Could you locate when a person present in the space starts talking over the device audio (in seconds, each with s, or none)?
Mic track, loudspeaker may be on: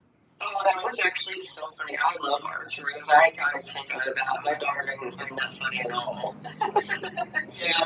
none